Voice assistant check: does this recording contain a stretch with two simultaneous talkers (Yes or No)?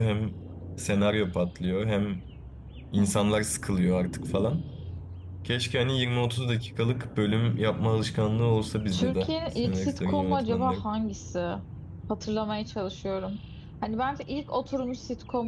Yes